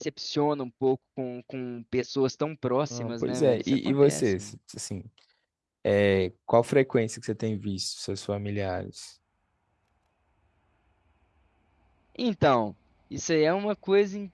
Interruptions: present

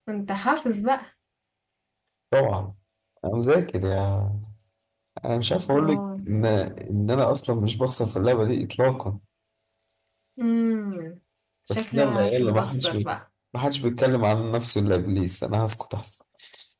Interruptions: present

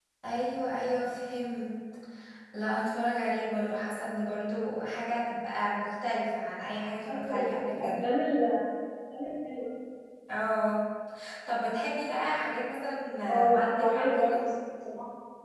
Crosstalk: present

